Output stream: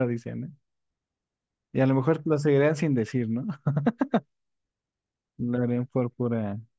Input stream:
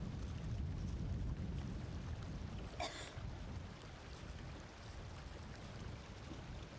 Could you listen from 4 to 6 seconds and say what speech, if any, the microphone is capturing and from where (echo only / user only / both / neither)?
neither